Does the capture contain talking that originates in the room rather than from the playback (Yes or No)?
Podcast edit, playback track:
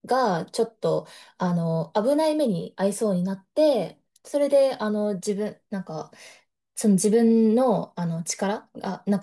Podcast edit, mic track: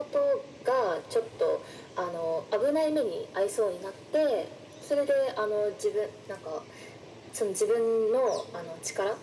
No